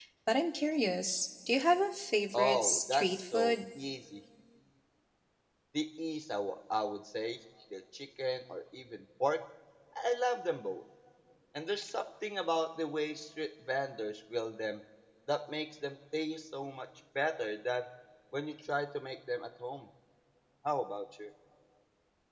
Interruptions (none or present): present